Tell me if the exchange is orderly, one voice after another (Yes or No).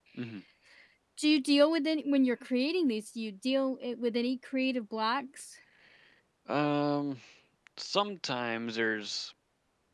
Yes